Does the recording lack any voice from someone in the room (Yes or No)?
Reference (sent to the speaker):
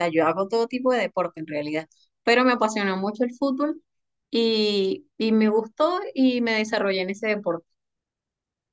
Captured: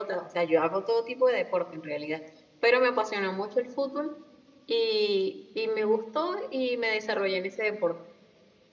Yes